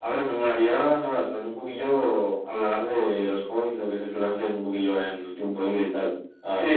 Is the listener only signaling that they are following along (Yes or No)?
No